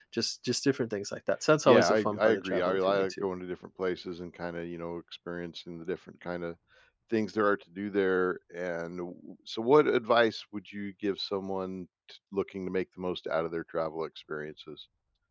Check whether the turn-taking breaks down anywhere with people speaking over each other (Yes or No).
Yes